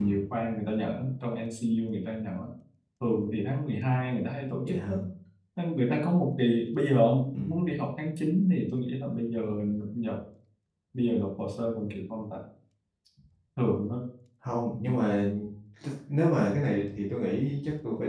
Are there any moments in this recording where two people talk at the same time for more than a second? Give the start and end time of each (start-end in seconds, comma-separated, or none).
none